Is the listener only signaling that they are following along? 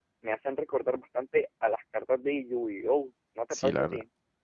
No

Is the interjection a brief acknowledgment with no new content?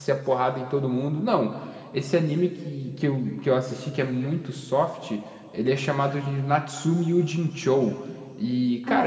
Yes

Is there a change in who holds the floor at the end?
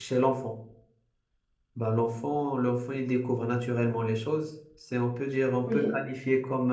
No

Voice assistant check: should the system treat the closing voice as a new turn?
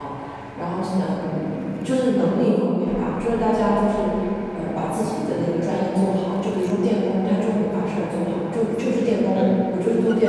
No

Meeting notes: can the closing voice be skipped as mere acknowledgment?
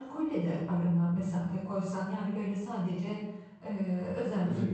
Yes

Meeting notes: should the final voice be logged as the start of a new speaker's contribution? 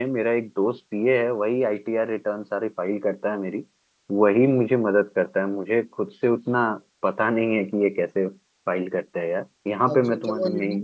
Yes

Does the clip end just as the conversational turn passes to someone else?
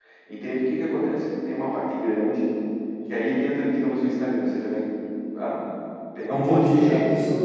Yes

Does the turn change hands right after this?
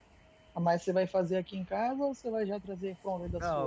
Yes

